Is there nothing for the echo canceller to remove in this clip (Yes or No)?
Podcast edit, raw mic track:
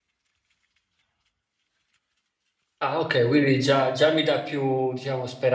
Yes